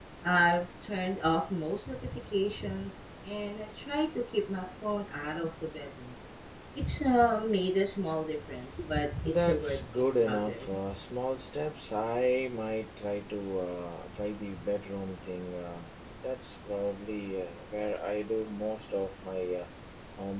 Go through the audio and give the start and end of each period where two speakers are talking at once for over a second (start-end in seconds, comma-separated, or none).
9.2-10.8